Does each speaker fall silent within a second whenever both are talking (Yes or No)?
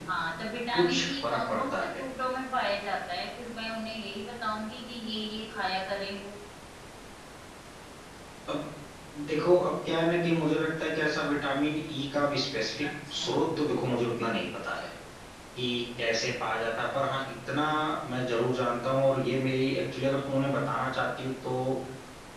No